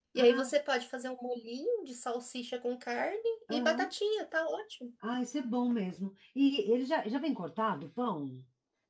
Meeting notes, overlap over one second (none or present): none